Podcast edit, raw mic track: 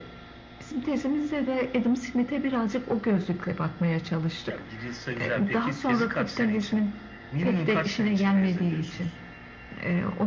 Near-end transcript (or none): none